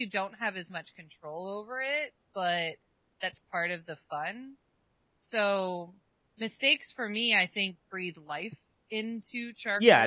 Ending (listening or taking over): taking over